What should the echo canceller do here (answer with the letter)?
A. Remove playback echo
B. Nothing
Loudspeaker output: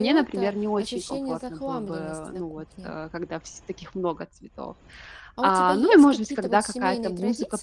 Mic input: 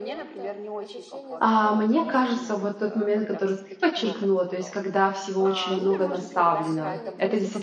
A